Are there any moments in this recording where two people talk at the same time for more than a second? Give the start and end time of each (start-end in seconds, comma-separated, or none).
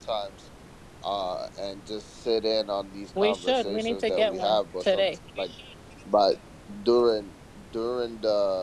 3.2-5.1